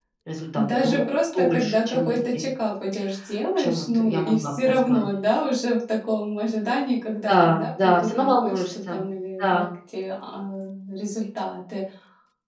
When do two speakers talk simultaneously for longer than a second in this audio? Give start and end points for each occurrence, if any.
0.5-2.4, 3.6-5.0, 7.3-9.0

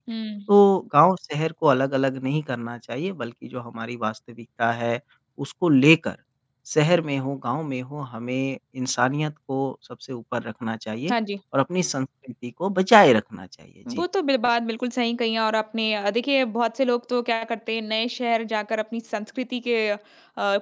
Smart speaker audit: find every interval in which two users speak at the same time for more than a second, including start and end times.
none

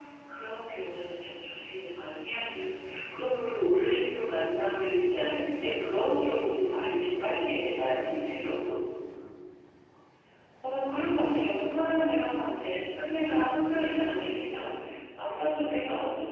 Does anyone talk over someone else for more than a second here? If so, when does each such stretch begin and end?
none

